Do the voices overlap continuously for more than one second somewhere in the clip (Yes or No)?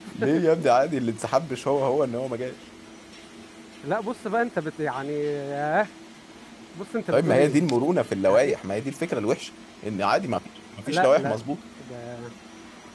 No